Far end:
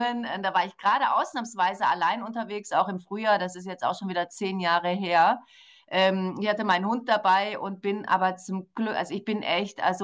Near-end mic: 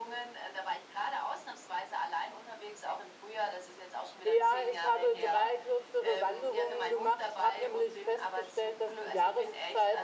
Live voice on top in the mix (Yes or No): Yes